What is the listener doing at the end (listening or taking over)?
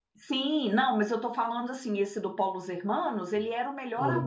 listening